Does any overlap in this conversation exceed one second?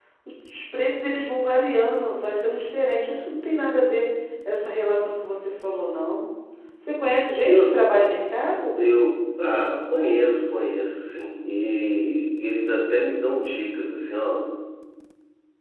No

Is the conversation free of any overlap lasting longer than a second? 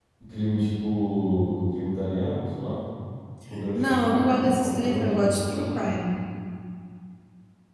No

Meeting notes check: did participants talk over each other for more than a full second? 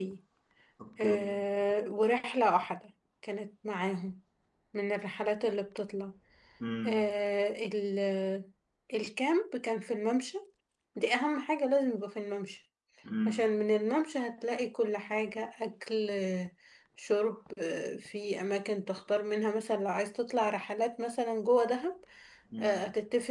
No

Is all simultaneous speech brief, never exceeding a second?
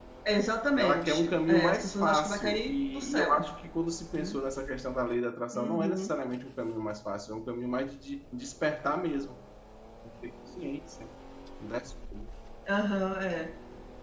No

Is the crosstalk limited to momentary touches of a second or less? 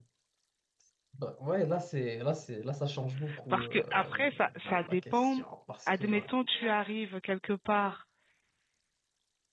No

